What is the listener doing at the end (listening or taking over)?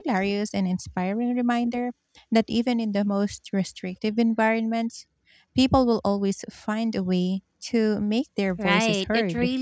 taking over